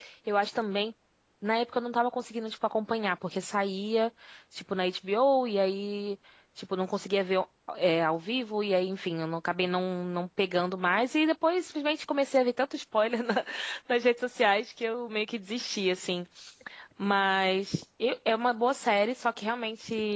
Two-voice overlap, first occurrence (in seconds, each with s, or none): none